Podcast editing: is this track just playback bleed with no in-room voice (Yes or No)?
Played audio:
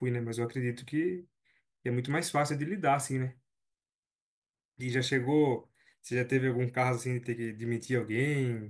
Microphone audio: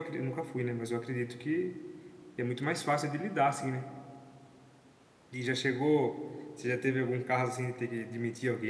Yes